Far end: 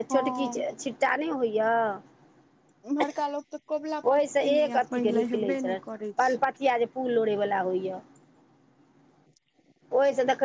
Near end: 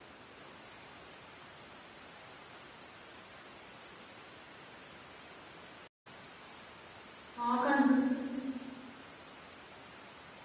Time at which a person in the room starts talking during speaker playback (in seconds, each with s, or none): 7.4 s